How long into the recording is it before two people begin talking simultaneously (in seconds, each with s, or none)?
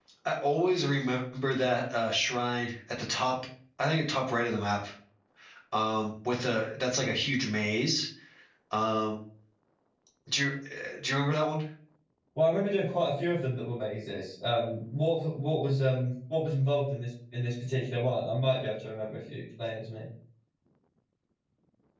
none